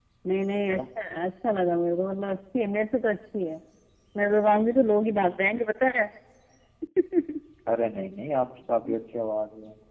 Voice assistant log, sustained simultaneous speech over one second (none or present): none